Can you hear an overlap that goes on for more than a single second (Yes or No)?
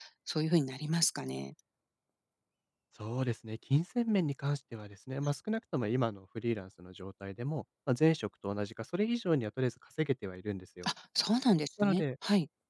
No